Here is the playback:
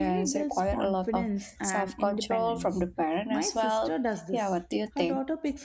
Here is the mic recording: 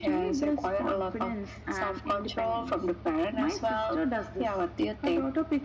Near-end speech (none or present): none